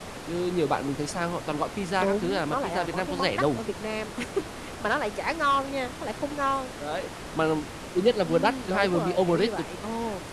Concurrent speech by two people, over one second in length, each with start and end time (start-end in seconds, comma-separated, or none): 2.0-3.6, 8.2-9.7